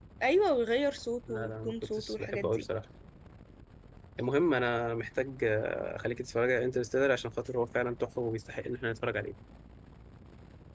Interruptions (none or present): present